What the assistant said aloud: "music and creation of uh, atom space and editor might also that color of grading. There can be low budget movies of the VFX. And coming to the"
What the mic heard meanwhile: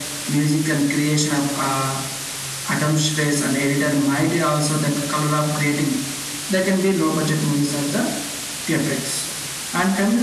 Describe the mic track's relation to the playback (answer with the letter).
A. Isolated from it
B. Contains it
B